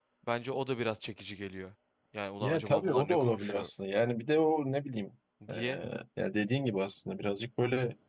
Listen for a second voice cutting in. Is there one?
Yes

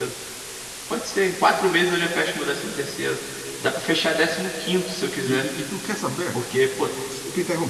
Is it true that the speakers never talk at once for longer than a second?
Yes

